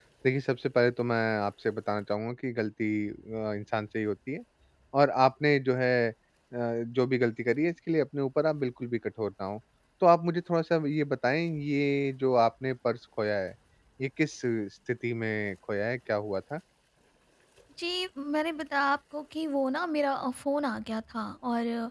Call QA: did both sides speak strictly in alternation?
Yes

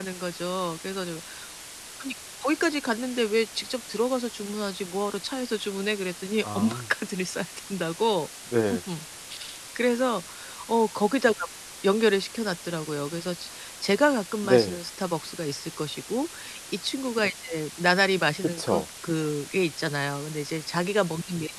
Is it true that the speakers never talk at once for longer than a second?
Yes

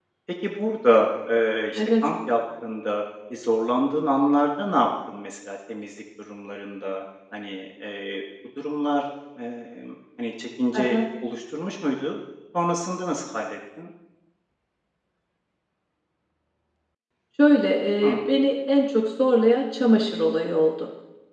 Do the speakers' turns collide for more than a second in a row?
No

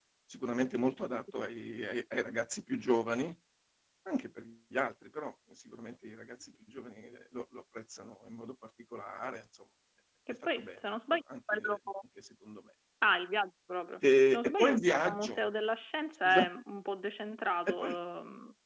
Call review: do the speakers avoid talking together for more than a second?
No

